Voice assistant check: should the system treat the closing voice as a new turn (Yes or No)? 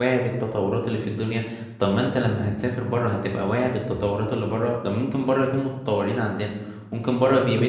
No